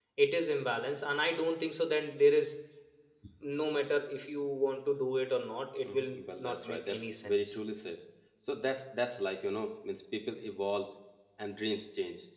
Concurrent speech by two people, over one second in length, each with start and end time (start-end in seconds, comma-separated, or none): 5.9-7.6